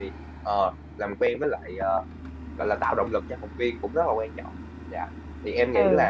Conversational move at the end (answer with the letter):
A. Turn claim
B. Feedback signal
A